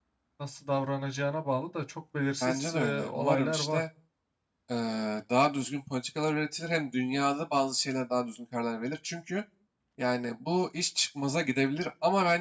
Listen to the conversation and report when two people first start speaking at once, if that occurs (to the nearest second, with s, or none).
2 s